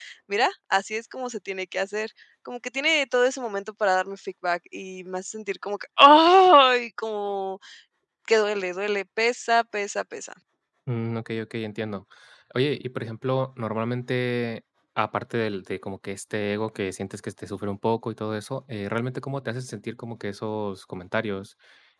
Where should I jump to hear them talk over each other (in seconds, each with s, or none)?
none